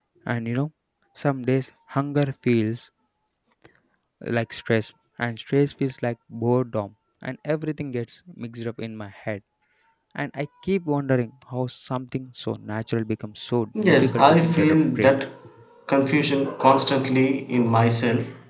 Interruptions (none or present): present